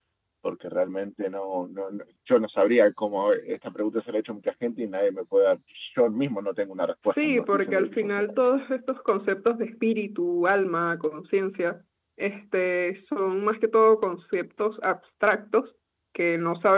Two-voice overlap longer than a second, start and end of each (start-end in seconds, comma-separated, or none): 7.0-8.3